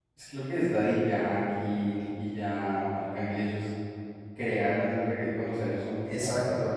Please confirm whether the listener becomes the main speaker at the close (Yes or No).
Yes